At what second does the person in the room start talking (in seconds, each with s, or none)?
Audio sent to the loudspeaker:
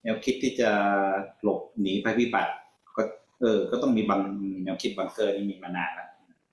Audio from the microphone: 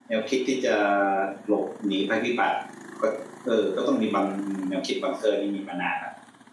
none